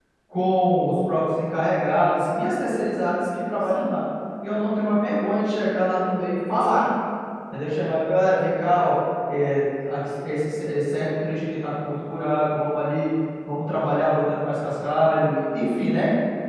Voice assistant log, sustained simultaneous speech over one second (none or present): none